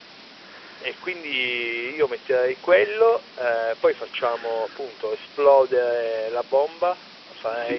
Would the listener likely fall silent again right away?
No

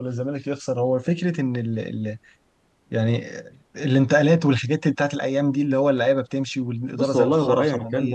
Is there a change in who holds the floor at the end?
Yes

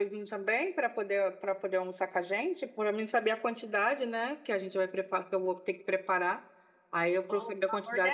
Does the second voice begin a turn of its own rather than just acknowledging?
Yes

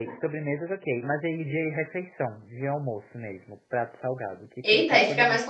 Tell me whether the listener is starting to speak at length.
Yes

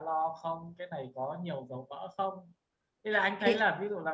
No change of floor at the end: Yes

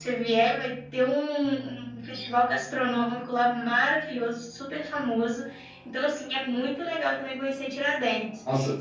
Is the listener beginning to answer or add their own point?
Yes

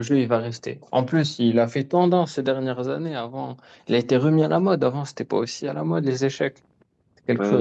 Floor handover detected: Yes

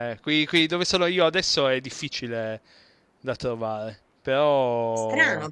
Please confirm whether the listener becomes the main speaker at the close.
Yes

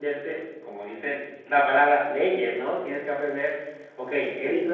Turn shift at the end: No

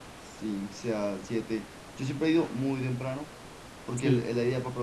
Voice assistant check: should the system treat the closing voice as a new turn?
No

